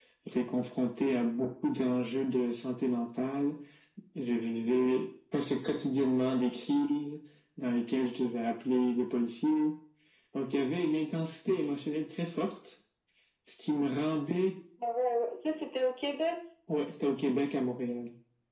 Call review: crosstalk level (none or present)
none